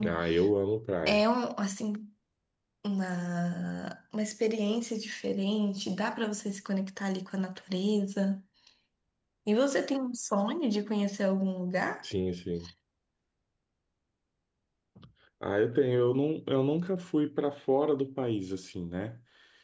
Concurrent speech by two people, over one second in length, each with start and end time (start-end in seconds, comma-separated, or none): none